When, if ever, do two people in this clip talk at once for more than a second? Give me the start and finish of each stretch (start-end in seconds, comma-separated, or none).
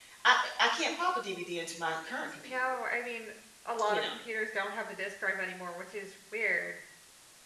none